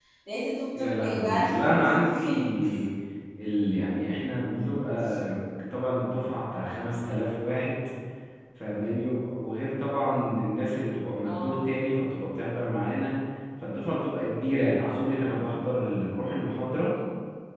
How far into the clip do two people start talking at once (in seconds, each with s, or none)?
0.8 s